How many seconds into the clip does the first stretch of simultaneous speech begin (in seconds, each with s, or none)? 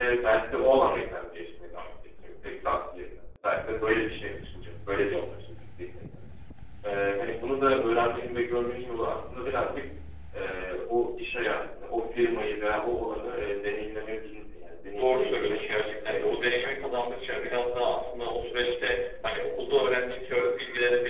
15.0 s